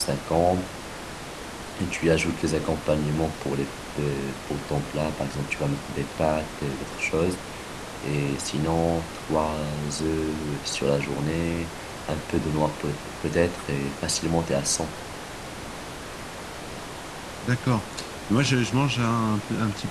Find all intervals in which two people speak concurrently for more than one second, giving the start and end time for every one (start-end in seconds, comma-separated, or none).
none